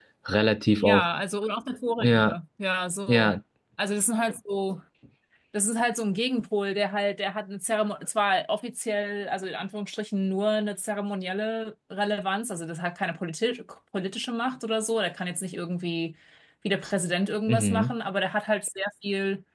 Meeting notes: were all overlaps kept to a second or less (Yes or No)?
Yes